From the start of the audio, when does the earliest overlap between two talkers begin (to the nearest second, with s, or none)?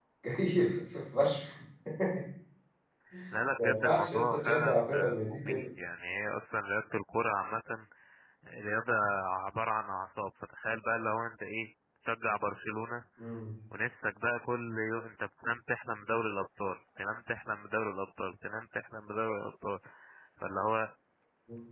4 s